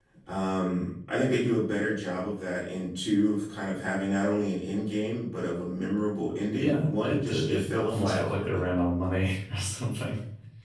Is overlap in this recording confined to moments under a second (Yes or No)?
No